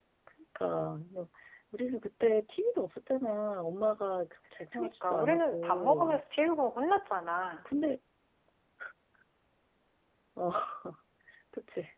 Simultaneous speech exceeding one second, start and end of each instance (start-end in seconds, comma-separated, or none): 4.7-6.2